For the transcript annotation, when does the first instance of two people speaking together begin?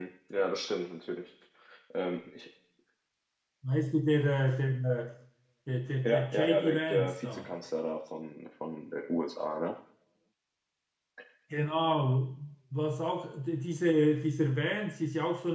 6 s

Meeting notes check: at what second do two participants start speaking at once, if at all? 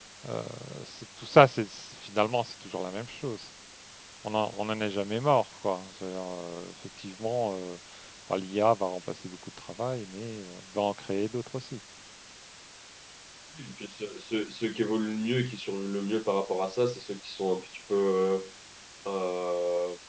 none

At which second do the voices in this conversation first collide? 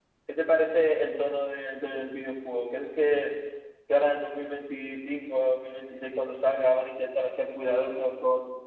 none

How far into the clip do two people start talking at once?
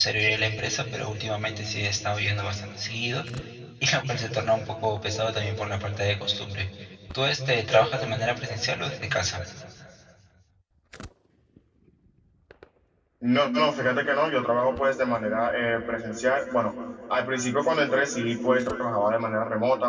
none

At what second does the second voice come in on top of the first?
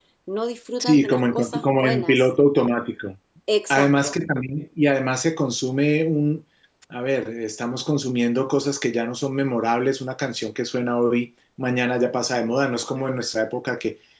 1 s

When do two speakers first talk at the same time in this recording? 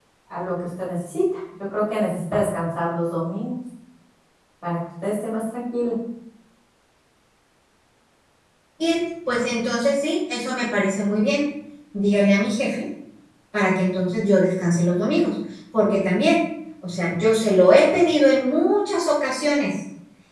none

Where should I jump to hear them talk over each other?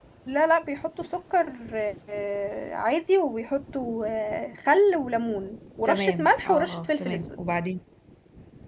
6 s

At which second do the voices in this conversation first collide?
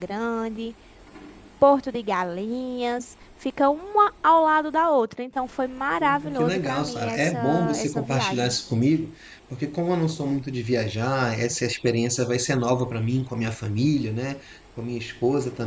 6 s

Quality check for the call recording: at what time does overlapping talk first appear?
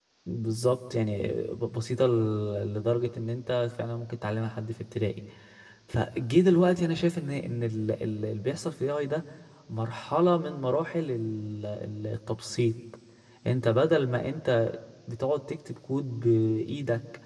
none

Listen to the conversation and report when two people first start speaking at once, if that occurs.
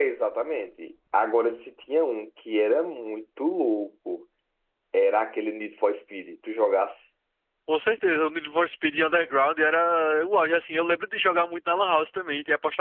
none

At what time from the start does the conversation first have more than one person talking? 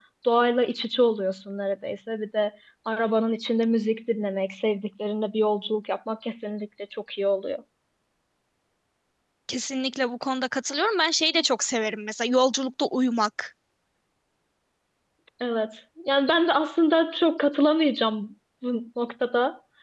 none

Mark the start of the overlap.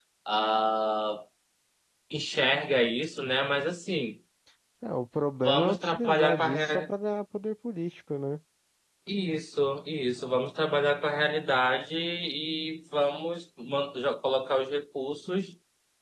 5 s

